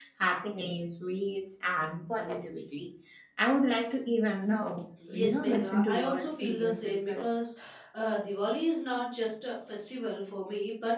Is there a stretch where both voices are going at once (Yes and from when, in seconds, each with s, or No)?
Yes, from 5.0 s